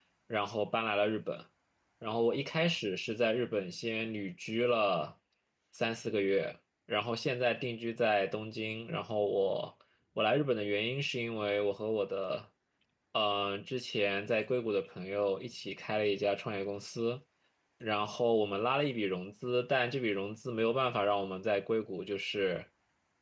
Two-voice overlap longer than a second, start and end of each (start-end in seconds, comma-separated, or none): none